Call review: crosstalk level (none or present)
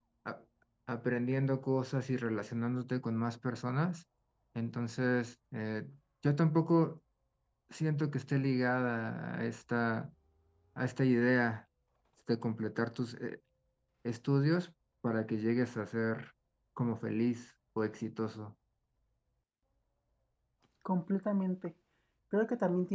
none